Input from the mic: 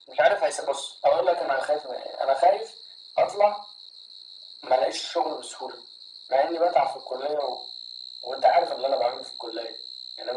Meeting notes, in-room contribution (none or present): none